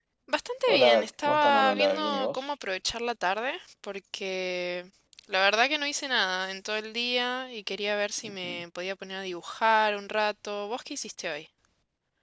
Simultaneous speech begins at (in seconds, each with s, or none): 0.7 s